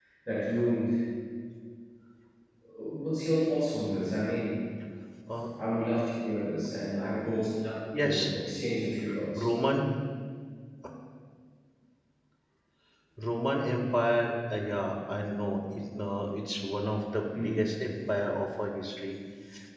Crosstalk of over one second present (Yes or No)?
No